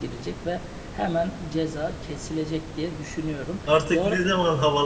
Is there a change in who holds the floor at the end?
Yes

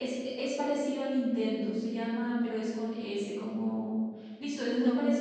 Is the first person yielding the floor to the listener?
No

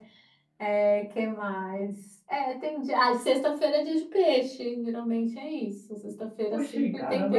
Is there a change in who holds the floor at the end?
Yes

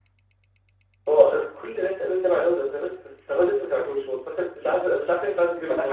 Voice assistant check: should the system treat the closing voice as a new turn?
Yes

